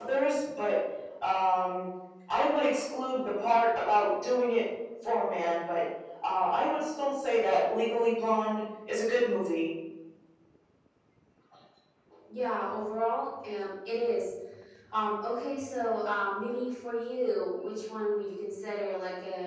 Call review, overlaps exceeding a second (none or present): none